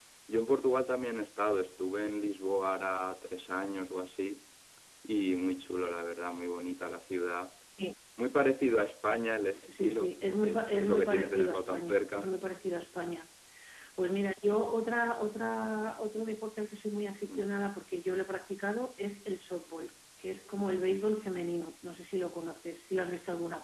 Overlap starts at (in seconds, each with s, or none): 9.7 s